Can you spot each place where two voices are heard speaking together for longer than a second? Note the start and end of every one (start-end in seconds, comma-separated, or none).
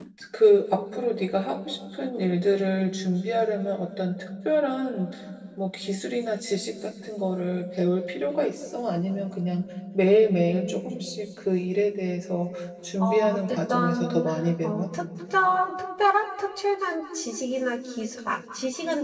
13.0-14.2